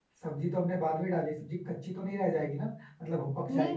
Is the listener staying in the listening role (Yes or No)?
No